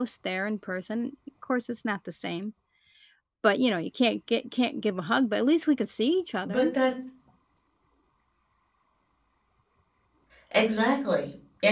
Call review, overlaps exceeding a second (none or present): none